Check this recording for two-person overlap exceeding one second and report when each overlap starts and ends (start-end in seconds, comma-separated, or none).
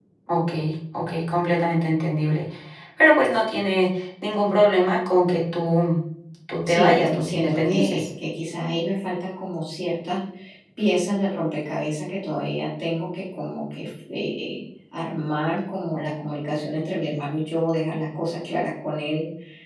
6.7-8.0